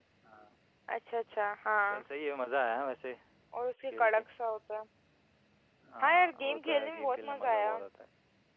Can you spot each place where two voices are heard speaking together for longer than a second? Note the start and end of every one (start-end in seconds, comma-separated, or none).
6.0-7.8